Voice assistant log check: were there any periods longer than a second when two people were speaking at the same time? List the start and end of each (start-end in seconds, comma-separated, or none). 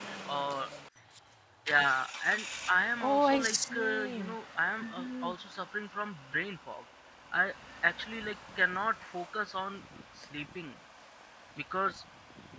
3.0-4.3